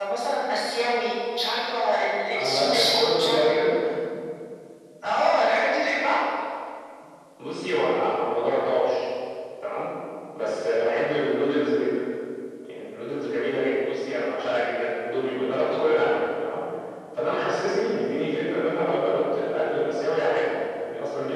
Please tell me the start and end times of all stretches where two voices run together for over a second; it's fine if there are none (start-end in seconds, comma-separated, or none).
2.3-3.5